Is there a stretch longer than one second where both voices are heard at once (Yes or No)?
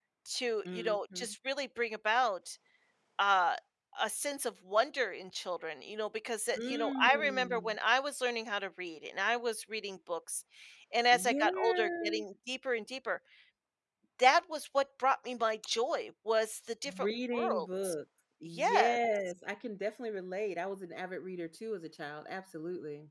Yes